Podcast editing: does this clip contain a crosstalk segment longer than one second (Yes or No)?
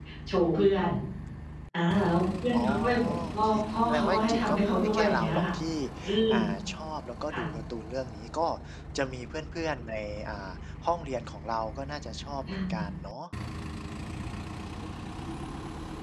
Yes